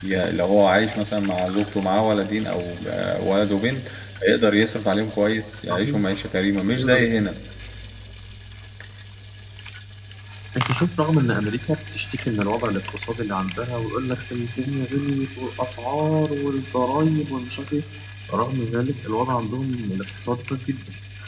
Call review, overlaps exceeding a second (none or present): none